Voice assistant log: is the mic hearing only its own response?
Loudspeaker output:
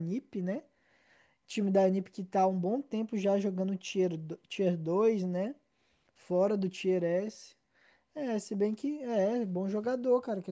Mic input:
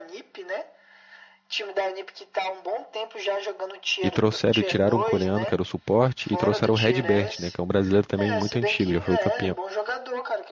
No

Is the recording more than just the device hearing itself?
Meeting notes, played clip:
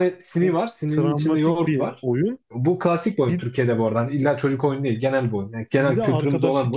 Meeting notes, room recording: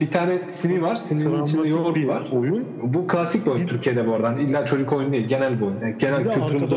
No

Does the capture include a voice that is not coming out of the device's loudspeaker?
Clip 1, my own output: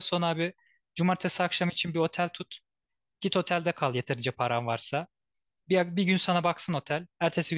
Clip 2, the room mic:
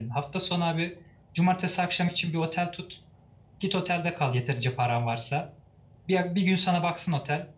No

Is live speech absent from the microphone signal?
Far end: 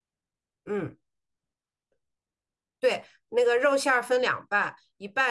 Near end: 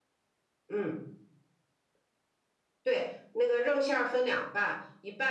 Yes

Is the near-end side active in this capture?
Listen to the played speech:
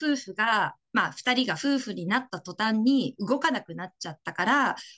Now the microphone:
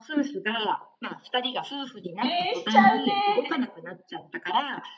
Yes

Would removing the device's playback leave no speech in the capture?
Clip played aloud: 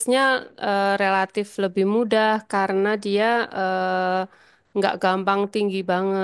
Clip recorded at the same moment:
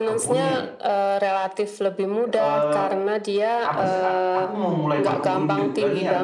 No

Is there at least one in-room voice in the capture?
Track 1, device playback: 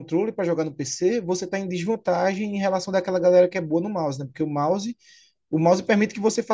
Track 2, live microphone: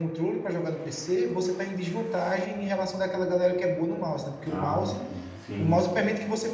Yes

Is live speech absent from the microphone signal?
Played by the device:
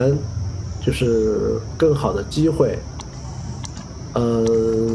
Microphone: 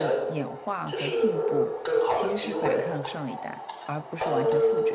No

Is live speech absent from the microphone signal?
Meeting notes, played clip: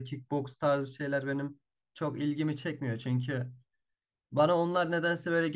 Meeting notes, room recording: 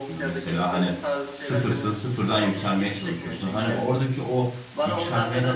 No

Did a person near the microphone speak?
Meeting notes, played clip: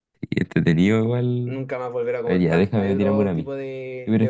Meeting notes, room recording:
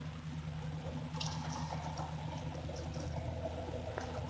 No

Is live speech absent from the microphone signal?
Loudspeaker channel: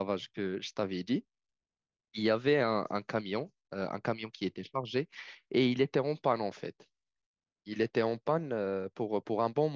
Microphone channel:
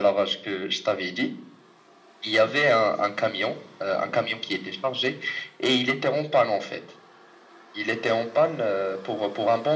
Yes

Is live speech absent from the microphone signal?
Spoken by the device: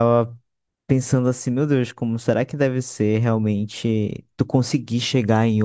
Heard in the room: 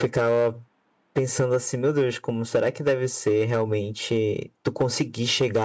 Yes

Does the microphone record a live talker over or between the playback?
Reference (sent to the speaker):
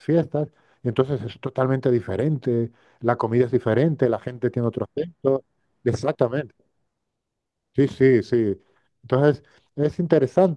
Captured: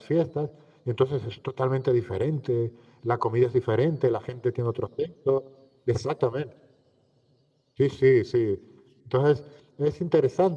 No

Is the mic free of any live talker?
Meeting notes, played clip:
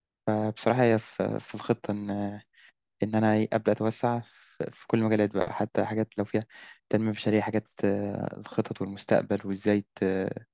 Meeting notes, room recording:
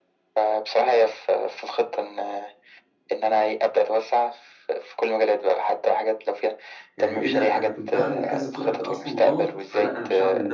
No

